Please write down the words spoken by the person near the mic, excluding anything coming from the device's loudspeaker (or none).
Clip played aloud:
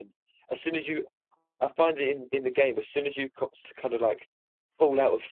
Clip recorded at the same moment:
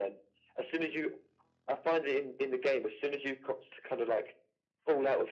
none